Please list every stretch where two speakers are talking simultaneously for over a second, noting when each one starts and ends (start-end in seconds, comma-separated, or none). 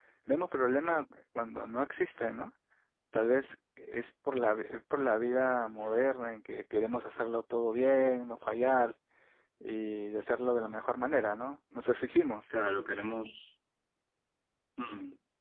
none